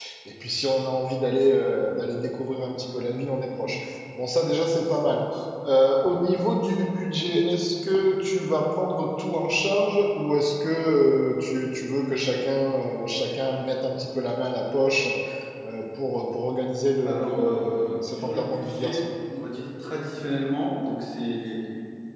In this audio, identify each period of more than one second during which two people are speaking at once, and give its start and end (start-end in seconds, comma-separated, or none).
17.0-19.0